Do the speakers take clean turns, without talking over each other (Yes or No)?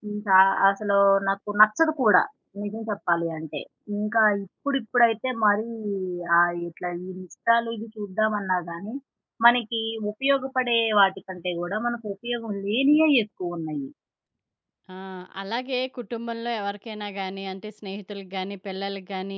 Yes